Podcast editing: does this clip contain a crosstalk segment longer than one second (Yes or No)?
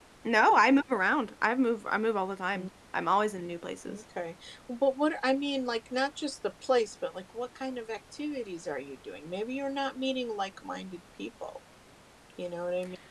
No